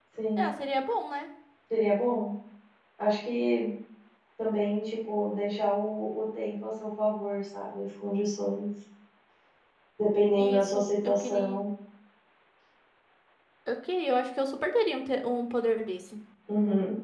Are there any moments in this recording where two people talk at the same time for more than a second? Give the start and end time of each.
10.4-11.6

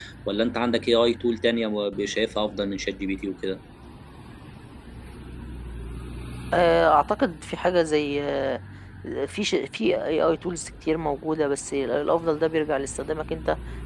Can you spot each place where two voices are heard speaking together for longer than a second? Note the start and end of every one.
none

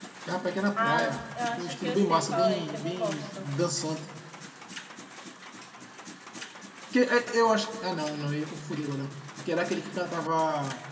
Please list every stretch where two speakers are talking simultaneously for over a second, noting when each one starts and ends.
0.8-3.5

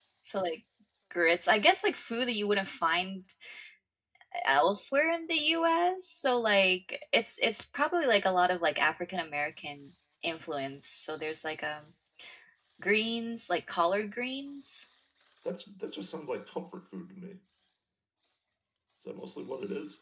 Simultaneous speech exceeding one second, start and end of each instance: none

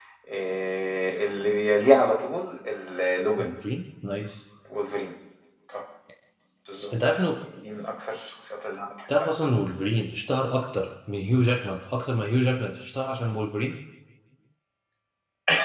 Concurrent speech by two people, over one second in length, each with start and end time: none

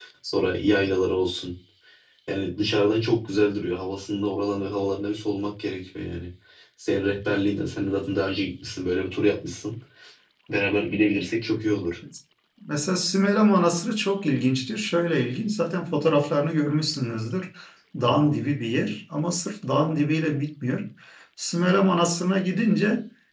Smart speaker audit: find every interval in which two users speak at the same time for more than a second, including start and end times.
none

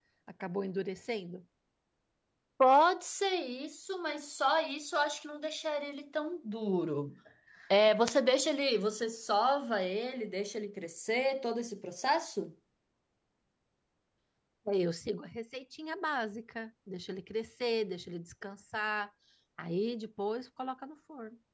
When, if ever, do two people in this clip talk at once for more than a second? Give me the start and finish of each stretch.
none

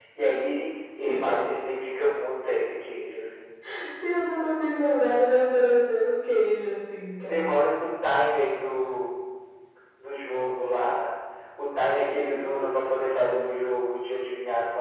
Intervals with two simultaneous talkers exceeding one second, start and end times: none

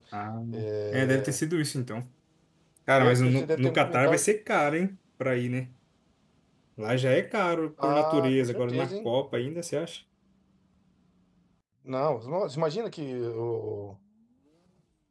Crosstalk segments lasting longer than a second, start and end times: 3.0-4.3, 7.8-9.1

